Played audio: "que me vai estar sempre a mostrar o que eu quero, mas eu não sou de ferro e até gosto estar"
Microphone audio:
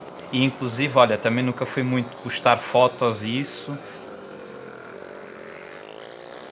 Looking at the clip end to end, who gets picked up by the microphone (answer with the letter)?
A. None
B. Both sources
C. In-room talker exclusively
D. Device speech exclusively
C